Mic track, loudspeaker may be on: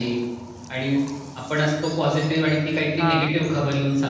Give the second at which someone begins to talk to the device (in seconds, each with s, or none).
3.0 s